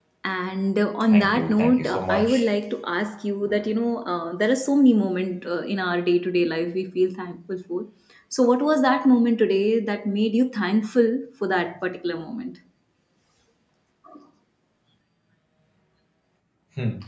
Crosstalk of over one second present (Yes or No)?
Yes